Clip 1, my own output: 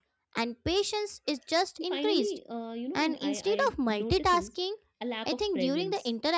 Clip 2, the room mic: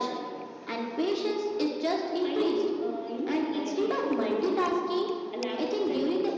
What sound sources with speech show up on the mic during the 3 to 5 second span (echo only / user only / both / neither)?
echo only